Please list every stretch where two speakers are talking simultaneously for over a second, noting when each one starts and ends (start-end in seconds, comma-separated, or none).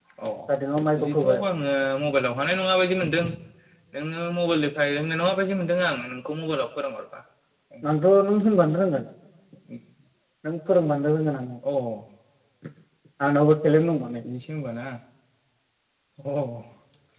none